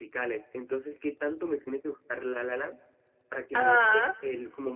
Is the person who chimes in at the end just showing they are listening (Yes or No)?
Yes